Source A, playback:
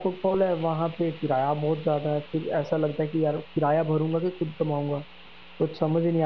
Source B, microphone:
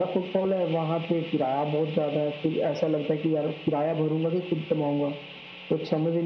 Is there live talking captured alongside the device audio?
No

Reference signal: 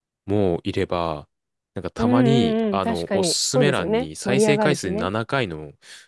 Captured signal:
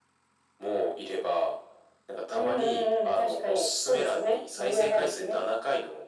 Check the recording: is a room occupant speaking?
No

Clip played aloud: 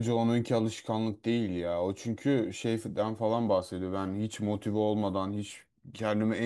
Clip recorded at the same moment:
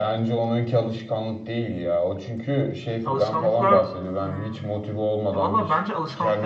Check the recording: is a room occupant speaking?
Yes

